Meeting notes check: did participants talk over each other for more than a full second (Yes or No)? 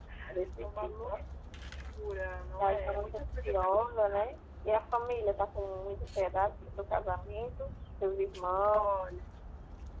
Yes